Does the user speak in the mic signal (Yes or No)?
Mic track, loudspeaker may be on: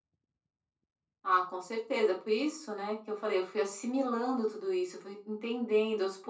No